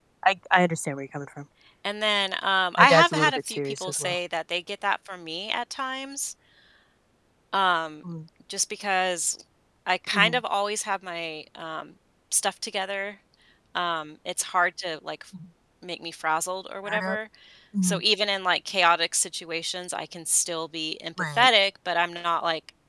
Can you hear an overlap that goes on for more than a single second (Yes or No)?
Yes